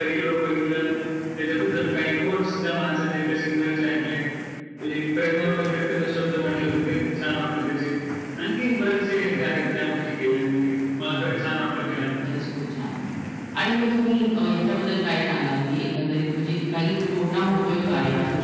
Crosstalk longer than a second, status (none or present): present